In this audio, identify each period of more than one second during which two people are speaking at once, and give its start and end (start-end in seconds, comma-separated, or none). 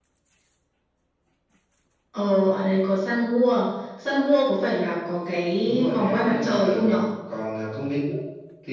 5.6-7.0